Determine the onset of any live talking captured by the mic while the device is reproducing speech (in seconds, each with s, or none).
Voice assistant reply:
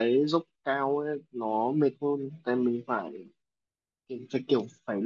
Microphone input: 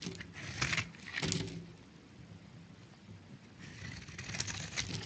none